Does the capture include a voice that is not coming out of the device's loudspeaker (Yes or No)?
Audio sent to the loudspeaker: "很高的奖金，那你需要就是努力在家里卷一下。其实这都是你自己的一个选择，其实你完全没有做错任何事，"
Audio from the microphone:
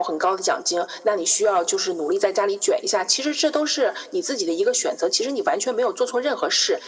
No